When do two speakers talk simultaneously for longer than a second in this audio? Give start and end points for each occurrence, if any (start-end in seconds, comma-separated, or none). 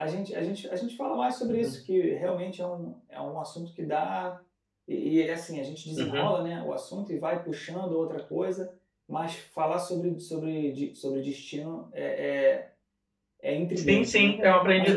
none